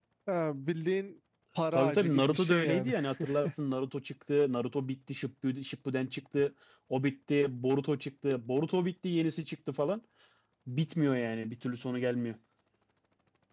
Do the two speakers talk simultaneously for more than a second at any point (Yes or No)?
Yes